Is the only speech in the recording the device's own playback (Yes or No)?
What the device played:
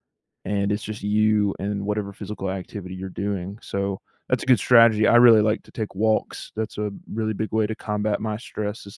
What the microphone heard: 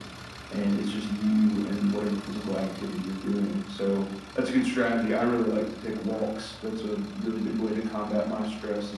Yes